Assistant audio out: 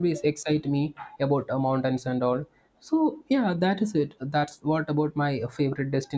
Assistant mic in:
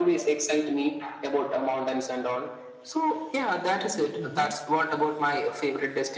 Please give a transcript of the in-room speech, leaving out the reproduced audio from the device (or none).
Mm-hmm.